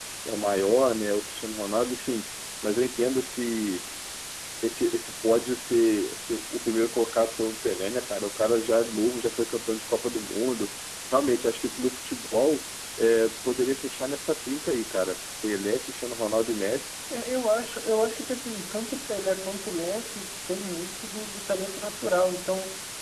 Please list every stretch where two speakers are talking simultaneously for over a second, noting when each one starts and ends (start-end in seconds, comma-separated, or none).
none